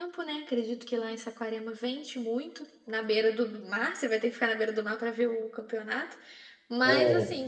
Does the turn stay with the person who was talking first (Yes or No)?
Yes